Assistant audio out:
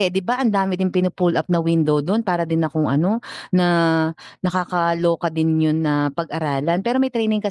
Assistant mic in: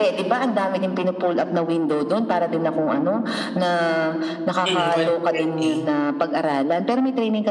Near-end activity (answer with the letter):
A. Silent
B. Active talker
B